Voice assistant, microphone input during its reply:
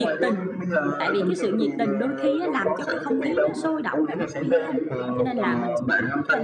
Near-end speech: present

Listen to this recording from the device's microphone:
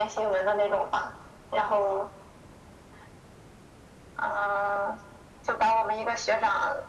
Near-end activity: none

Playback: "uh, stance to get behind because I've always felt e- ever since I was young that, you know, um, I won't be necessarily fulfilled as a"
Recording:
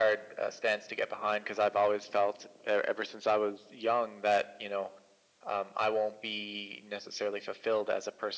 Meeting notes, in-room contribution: none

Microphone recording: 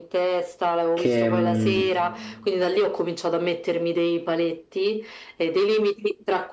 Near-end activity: present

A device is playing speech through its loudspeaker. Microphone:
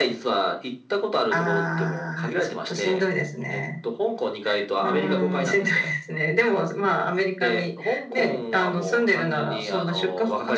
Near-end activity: none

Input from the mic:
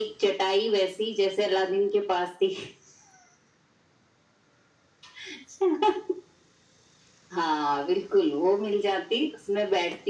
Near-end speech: none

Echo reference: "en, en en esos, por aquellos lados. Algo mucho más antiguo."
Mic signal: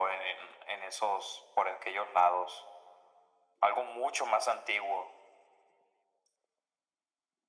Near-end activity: none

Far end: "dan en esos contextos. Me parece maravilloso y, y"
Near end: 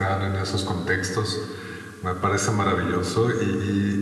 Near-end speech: none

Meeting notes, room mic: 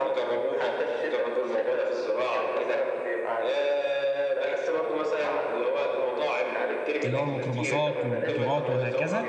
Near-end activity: present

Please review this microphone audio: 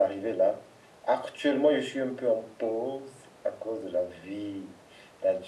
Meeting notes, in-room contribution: none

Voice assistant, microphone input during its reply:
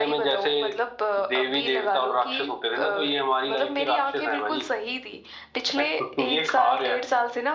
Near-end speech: none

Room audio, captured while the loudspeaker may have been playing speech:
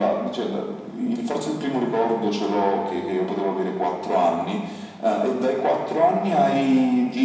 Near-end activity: none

